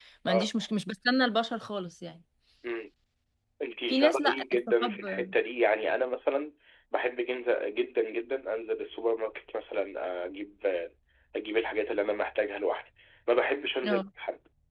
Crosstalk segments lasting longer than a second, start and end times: 3.9-5.2

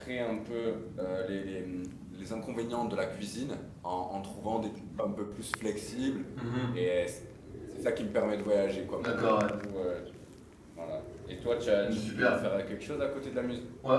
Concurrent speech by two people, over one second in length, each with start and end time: none

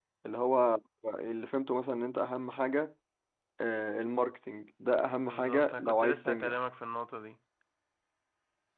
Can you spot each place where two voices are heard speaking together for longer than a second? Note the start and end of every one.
5.2-6.6

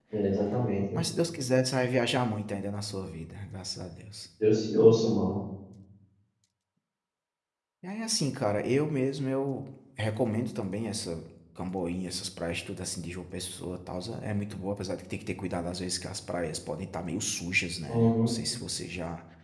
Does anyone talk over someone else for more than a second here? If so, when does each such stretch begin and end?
none

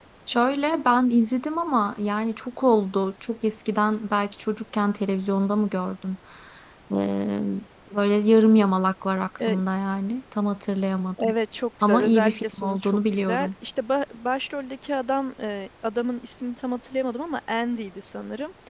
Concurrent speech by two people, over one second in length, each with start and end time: 11.8-13.5

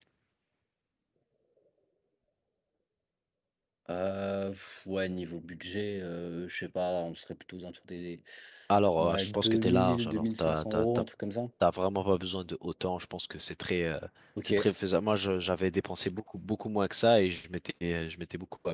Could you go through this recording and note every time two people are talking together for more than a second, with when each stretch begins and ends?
9.0-11.0

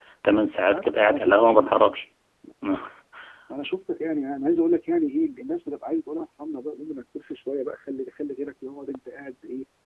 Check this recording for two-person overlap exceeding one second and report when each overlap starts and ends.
0.5-1.8

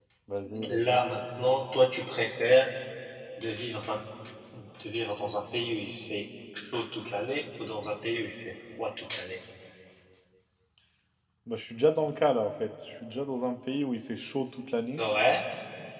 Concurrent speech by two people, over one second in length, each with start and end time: none

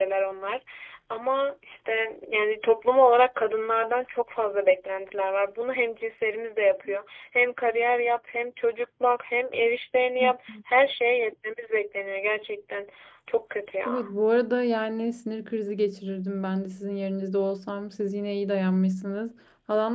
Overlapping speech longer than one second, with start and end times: none

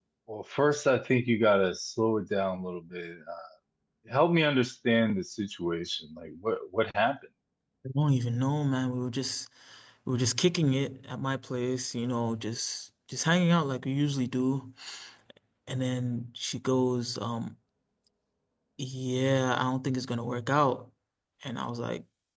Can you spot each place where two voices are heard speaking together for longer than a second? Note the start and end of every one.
none

